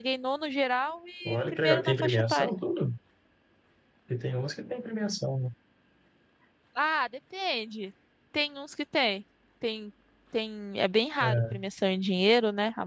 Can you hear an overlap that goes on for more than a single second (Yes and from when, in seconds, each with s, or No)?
Yes, from 1.2 s